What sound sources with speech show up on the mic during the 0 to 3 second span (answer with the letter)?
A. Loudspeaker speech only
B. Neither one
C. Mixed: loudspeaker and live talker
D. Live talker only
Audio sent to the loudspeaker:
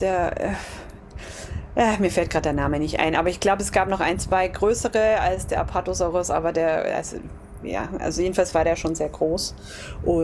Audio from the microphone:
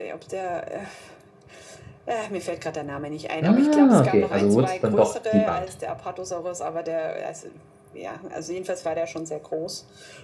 A